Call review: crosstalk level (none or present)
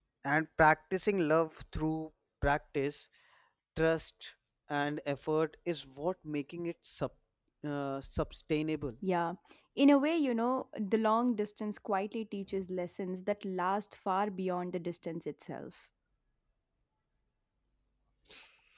none